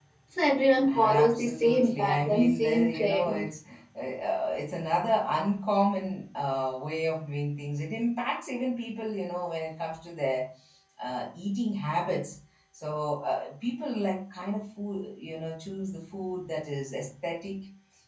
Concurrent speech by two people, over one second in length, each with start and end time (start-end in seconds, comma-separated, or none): 0.9-3.5